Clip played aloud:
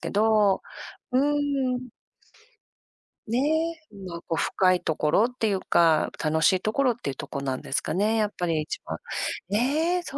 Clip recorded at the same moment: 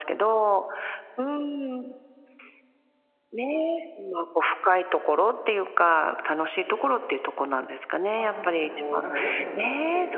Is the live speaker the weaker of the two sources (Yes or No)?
Yes